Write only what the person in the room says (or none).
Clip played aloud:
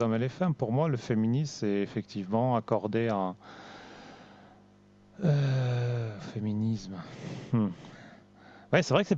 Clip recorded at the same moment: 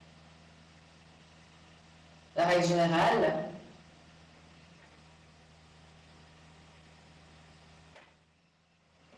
la règle générale.